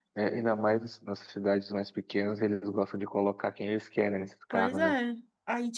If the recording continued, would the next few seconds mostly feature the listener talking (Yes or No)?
Yes